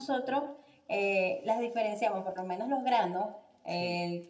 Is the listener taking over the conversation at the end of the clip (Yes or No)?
No